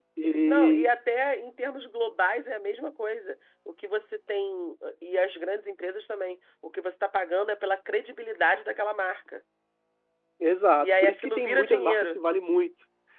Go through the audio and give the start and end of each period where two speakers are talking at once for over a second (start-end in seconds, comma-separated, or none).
10.8-12.2